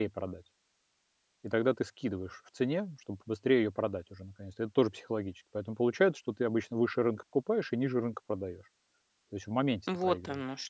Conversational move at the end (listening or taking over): taking over